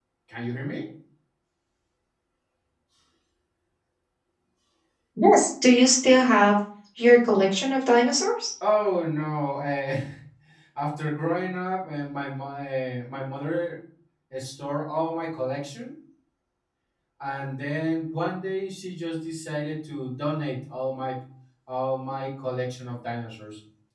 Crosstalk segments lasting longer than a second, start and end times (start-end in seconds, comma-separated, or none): none